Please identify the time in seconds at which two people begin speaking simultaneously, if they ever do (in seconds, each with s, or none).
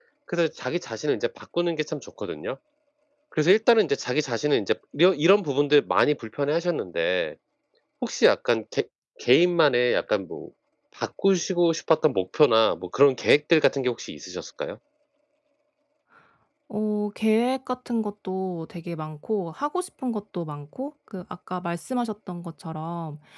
none